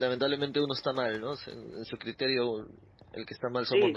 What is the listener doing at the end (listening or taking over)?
taking over